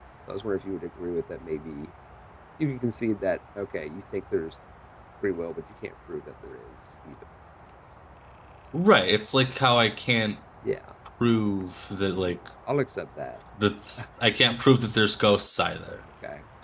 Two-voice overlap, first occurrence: none

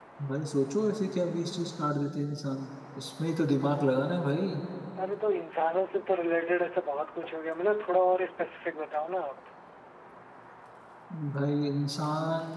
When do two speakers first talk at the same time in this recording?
none

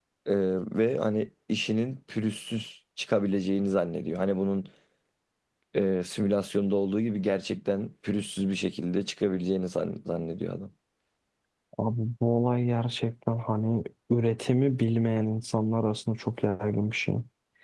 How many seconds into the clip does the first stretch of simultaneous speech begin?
none

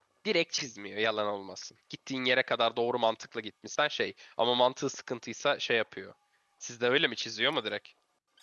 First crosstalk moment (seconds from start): none

